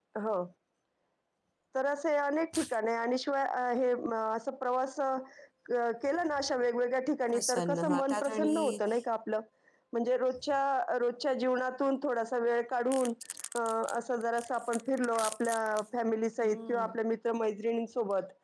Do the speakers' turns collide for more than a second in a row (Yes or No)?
Yes